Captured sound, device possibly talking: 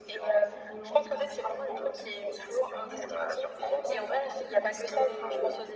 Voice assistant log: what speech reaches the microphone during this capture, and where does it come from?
both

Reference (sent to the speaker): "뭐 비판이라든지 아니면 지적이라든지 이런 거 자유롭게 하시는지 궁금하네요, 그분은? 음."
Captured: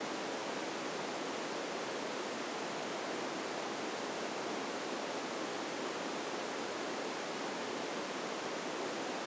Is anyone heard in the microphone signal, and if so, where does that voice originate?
neither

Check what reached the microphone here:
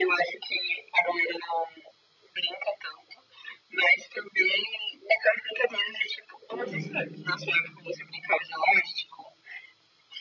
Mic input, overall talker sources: both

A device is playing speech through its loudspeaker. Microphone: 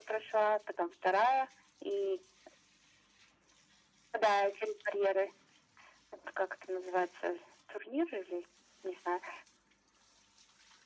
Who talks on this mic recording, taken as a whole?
echo only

